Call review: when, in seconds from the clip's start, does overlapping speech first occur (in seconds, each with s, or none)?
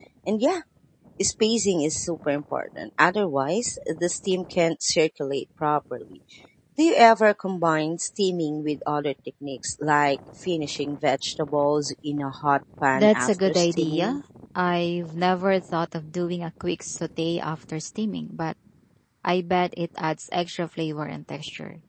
12.9 s